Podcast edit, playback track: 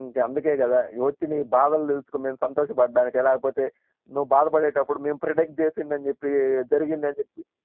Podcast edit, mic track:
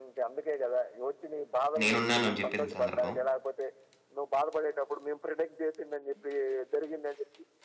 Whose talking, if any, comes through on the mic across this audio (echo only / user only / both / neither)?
both